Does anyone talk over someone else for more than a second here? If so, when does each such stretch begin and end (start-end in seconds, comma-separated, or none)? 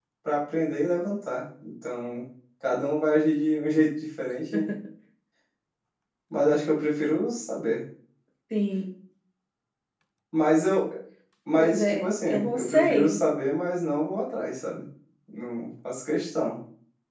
11.6-13.2